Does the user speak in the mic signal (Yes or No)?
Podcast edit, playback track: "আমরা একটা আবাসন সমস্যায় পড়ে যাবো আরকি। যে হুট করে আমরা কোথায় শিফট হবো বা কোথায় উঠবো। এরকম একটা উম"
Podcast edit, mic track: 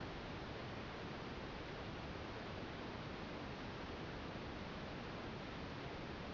No